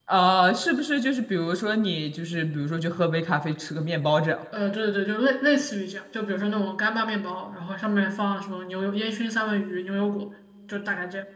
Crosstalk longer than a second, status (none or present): none